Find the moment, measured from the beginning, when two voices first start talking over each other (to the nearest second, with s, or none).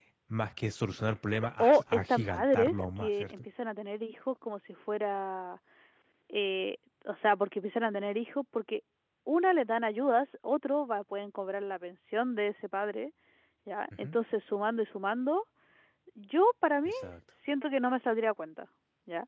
2 s